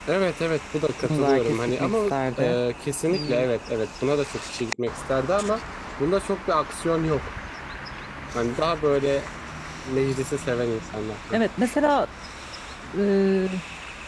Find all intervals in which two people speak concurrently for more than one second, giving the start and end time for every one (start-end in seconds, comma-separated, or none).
1.0-2.6